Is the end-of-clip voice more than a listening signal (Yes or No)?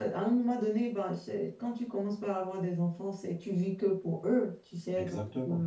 No